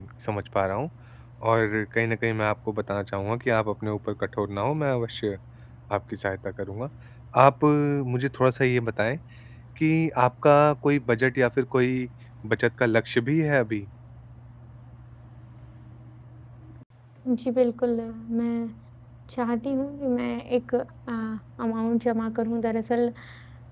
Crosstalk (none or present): none